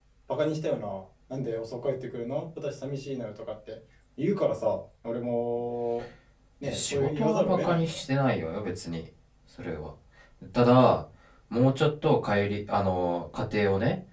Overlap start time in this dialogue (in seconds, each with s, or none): 6.6 s